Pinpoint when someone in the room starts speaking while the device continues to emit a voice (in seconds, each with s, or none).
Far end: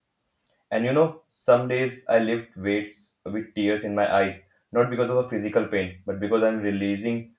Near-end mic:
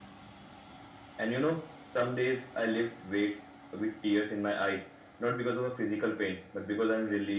none